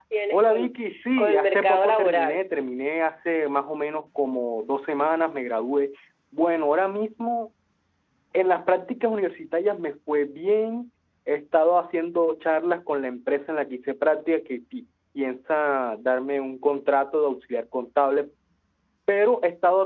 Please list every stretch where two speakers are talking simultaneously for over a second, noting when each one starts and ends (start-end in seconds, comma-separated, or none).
1.2-2.4